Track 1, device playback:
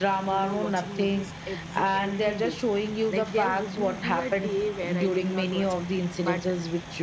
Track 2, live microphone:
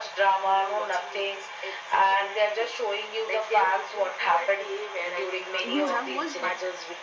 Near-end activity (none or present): present